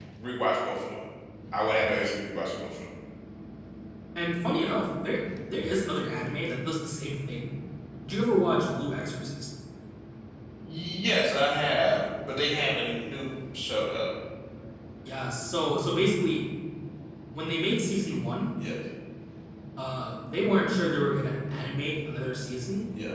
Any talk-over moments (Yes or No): No